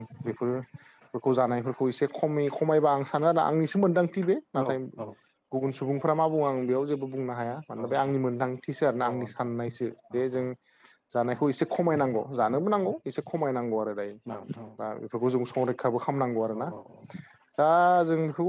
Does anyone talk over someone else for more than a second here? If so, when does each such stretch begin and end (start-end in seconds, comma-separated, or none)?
none